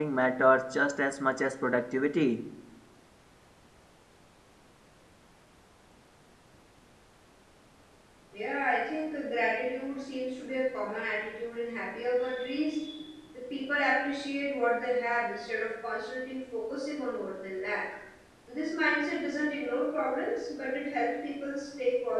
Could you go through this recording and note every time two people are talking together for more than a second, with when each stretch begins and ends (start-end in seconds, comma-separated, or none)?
none